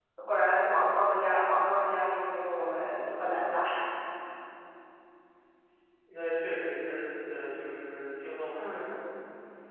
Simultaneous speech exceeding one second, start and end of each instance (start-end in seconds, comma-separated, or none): none